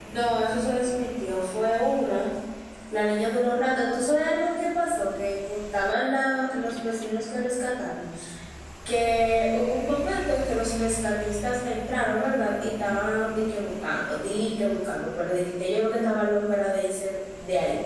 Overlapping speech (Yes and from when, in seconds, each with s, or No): No